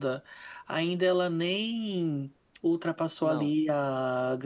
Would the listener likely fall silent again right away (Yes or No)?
Yes